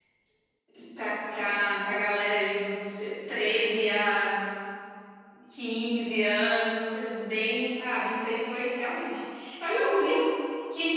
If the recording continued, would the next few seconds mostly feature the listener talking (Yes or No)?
No